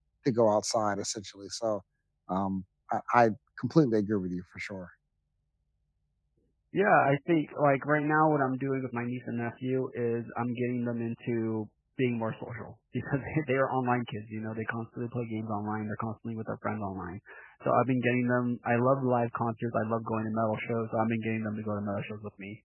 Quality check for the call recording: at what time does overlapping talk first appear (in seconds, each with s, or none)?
none